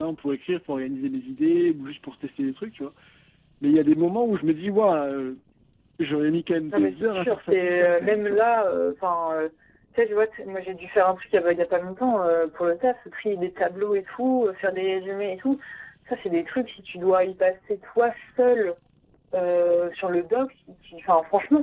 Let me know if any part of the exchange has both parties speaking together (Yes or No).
Yes